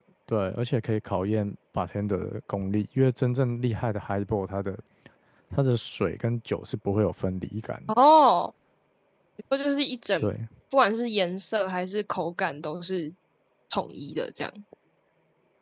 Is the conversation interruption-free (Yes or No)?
Yes